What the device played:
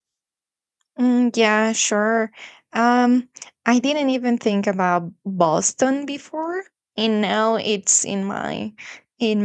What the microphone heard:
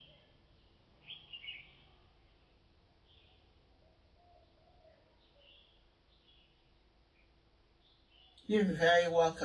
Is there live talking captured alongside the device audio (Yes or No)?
Yes